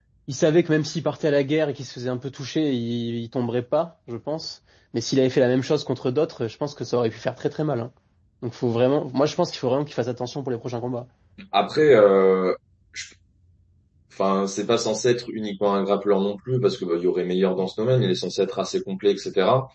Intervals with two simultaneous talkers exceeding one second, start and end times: none

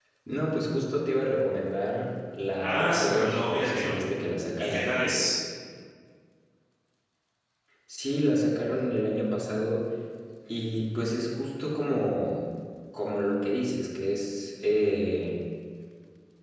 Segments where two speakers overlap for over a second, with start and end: 2.6-4.0

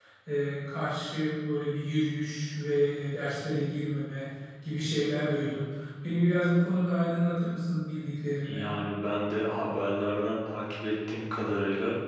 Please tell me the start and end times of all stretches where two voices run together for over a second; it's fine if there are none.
none

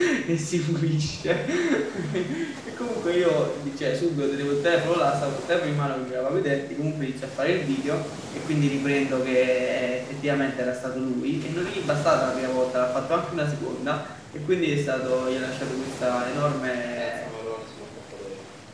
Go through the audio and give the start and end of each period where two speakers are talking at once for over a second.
none

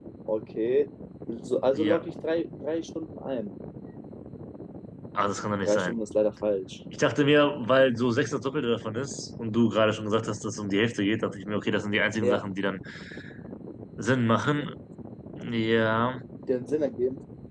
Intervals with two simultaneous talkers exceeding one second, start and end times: none

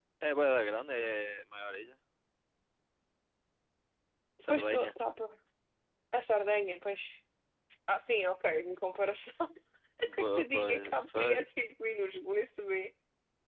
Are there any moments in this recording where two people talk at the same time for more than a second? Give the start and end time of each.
10.0-11.5

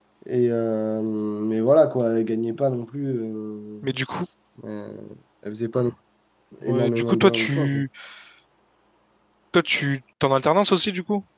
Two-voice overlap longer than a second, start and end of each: 6.6-7.8

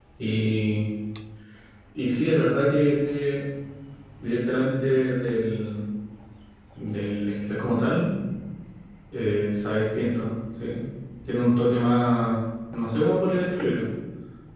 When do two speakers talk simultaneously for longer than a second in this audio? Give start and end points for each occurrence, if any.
none

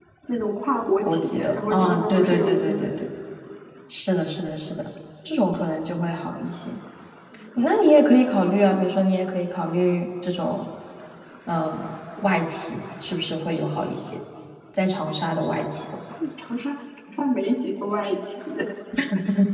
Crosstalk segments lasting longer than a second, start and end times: 1.0-3.0

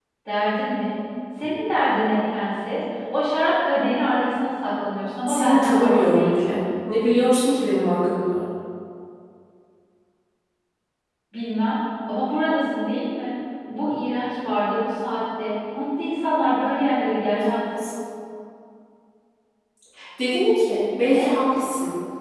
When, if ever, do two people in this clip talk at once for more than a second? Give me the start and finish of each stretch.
5.3-6.6

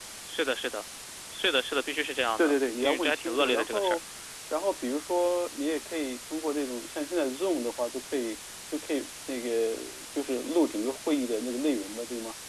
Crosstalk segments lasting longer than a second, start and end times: 2.4-4.0

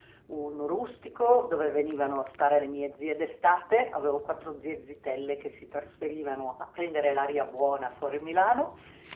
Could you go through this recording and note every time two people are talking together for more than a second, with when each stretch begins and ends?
none

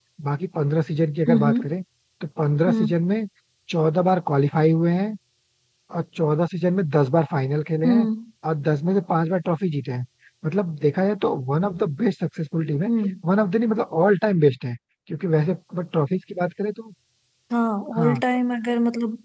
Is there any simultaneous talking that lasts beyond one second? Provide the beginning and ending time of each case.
none

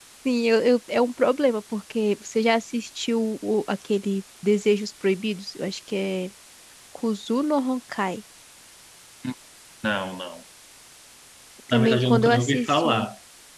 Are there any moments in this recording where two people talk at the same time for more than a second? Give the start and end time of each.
11.7-13.1

